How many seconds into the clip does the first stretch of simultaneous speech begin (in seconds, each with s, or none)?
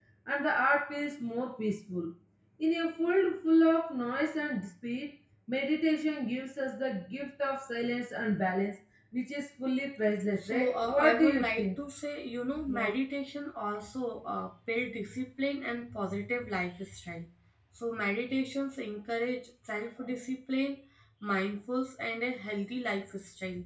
10.4 s